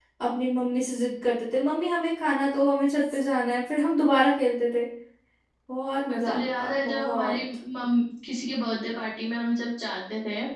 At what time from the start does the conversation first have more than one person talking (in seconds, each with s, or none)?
6.1 s